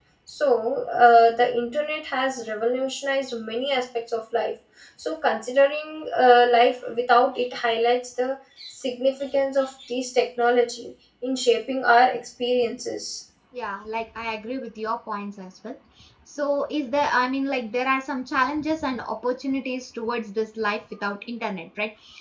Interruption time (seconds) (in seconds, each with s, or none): none